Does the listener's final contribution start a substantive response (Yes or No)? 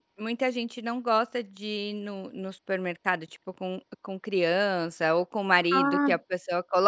No